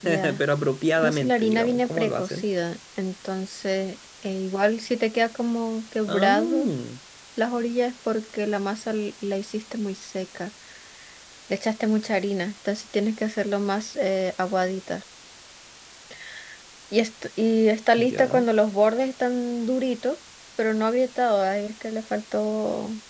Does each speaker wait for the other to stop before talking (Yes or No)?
No